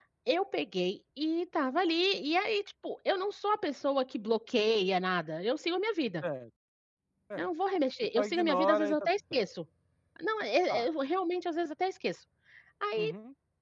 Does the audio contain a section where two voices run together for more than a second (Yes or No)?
Yes